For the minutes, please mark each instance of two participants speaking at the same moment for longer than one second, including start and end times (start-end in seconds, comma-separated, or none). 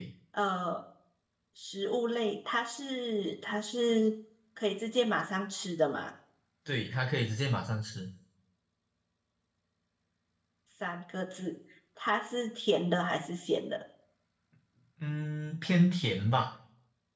none